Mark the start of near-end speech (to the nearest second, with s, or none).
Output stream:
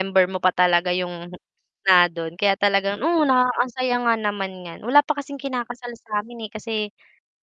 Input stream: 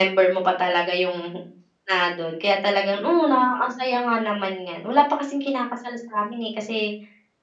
none